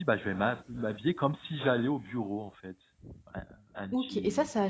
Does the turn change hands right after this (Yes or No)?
Yes